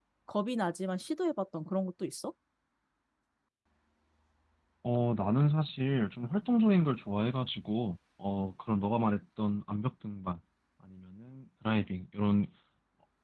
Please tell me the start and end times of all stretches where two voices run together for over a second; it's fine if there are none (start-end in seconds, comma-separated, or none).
none